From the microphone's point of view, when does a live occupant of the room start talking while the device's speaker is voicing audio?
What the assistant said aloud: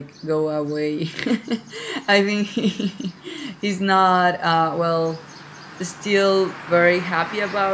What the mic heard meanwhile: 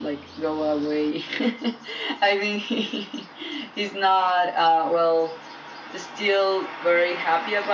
none

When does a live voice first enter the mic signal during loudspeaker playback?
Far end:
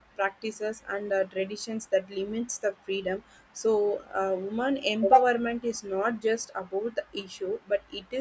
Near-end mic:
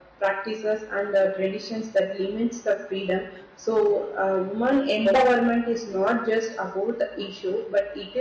none

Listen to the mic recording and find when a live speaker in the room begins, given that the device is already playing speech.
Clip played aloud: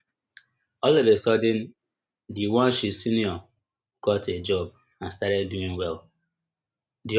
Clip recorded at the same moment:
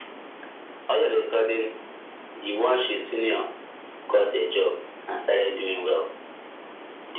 none

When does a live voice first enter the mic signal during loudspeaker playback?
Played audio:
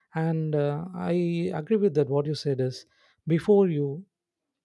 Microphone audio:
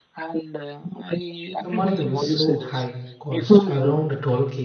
1.6 s

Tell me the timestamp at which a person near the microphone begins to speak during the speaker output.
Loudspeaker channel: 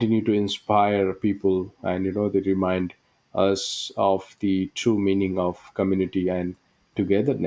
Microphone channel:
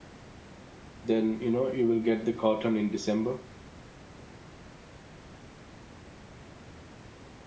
1.0 s

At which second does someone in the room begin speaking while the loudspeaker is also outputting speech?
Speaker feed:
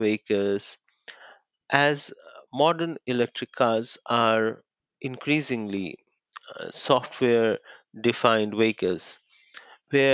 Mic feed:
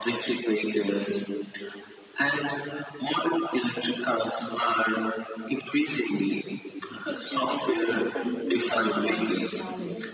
6.9 s

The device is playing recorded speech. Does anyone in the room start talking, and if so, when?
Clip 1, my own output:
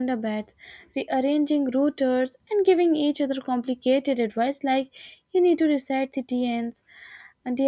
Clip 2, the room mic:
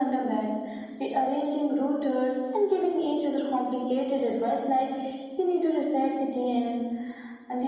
none

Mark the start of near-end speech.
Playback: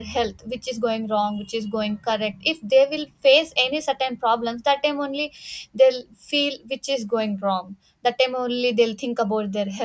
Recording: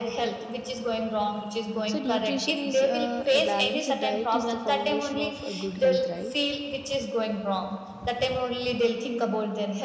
1.8 s

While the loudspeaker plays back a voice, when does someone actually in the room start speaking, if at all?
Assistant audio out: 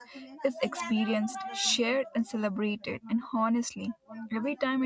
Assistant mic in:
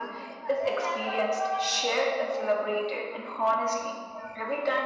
none

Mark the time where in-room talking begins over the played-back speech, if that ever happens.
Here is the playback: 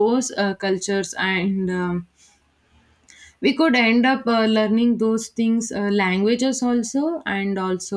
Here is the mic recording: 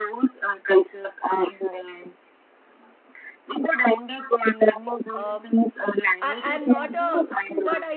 5.1 s

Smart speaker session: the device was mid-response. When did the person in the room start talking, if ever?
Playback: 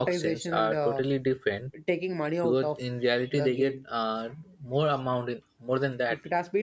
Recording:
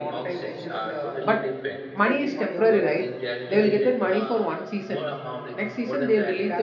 1.2 s

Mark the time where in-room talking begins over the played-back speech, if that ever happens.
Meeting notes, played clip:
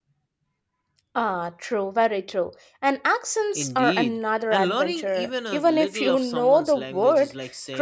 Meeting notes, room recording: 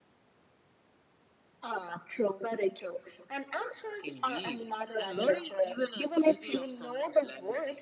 none

